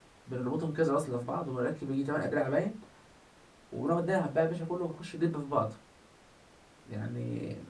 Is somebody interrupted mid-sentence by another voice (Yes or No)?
No